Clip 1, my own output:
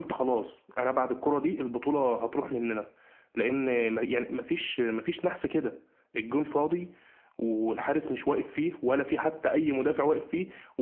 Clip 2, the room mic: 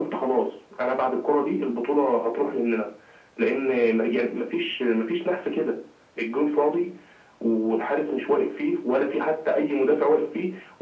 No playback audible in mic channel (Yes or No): No